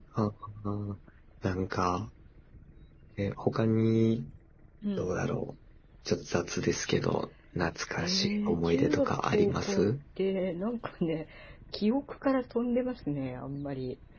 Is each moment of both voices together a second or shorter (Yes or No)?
No